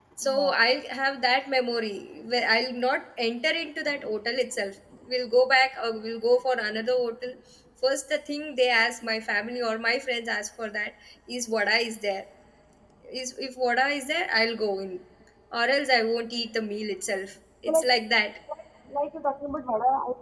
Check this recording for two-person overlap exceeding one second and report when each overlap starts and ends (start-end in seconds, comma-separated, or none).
none